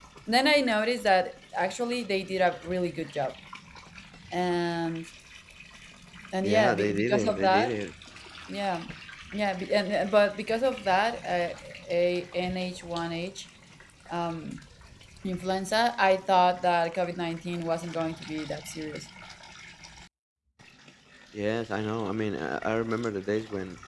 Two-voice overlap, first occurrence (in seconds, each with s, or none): 6.4 s